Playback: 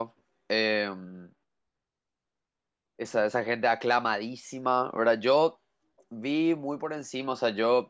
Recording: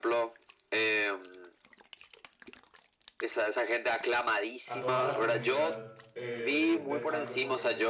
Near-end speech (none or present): present